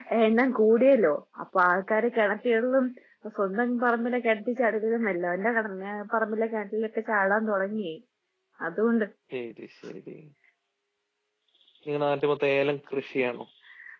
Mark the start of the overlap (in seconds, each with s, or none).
none